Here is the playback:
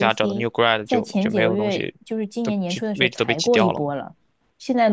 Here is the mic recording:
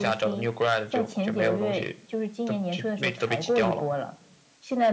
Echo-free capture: No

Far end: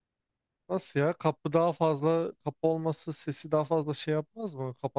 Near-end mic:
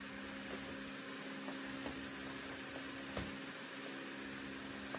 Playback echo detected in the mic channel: No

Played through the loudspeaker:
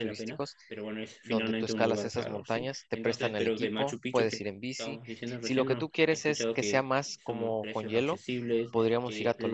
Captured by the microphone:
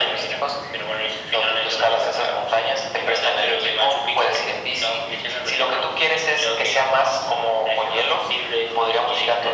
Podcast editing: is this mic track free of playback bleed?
No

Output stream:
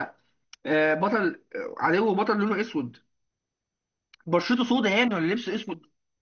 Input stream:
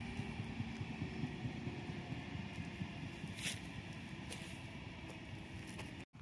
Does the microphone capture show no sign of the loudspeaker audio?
Yes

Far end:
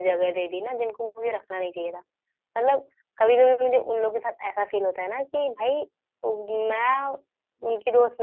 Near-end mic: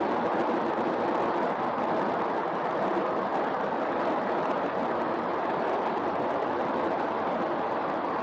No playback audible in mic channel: Yes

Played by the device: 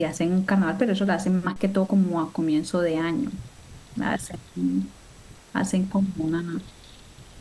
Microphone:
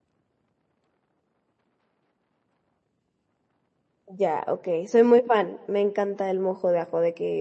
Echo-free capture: Yes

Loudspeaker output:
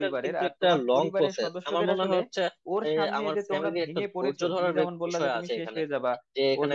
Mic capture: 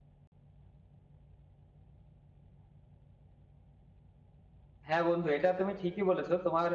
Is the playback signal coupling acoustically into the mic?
No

